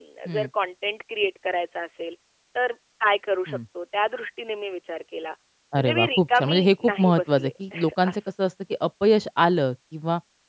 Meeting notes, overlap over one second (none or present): present